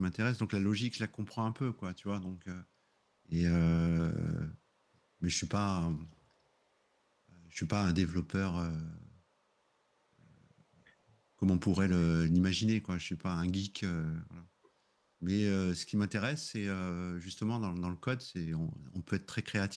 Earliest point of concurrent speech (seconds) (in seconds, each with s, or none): none